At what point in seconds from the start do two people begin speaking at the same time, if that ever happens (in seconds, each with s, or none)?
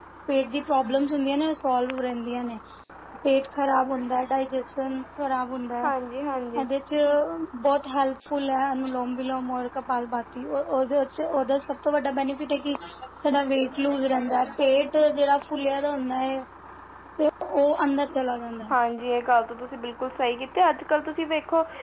none